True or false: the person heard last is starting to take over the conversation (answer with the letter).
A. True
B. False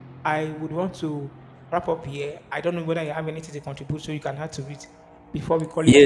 A